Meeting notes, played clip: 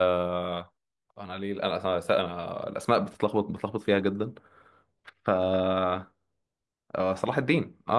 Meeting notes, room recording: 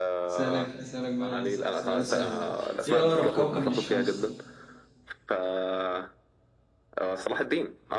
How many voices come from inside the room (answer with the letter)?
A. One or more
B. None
A